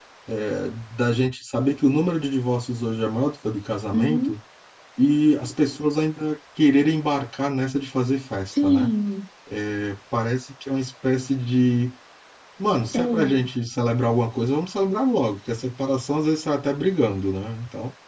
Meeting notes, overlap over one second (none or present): none